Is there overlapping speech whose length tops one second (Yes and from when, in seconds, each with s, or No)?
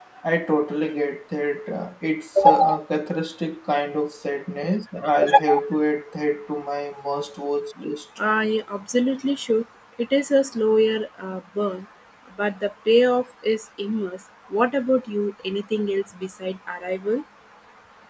No